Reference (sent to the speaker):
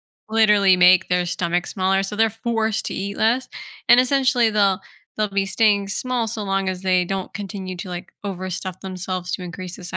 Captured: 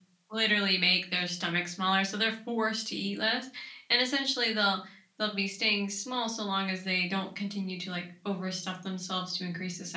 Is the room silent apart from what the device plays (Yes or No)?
Yes